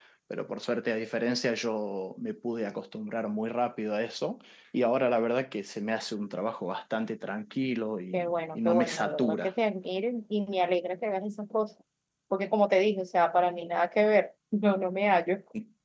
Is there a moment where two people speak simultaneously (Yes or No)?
Yes